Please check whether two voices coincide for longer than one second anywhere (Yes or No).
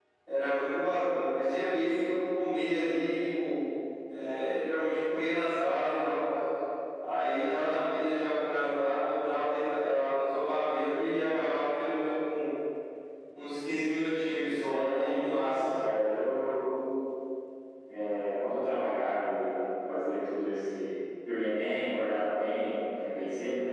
Yes